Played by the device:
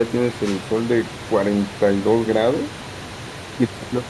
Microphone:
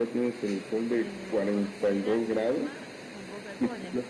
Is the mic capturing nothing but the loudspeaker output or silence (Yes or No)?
No